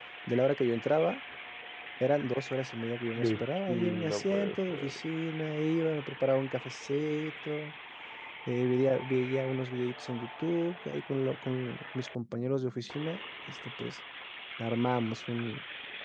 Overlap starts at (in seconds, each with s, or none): 3.2 s